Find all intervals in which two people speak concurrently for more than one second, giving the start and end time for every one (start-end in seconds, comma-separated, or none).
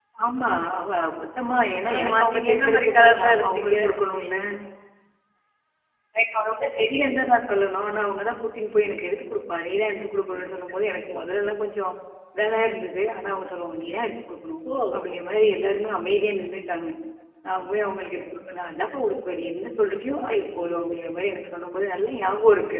1.9-3.7